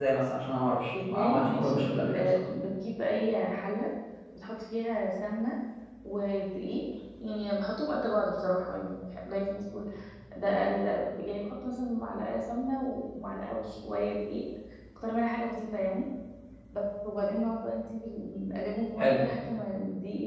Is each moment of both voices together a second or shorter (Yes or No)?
No